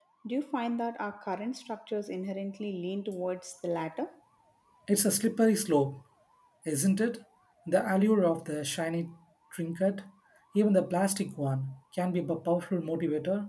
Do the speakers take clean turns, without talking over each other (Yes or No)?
Yes